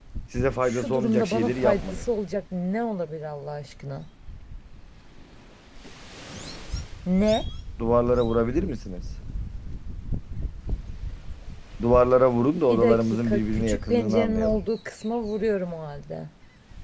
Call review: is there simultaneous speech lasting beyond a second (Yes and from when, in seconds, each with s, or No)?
Yes, from 0.6 s